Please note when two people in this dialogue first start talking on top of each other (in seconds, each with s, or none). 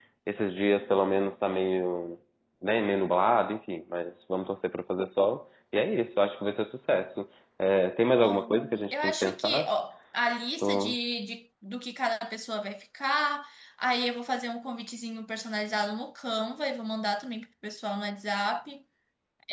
8.2 s